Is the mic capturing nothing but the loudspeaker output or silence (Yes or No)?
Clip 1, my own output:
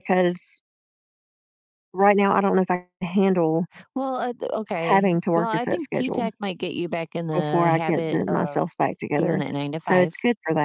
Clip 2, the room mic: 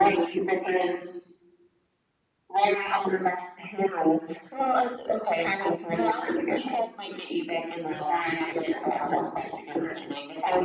Yes